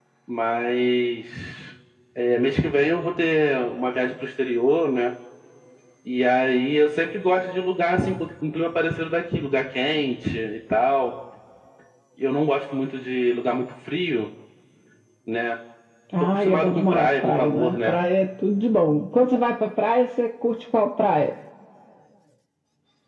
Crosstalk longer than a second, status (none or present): present